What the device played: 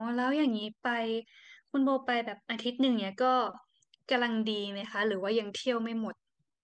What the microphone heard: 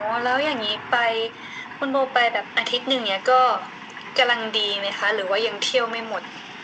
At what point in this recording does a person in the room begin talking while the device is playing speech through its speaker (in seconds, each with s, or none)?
none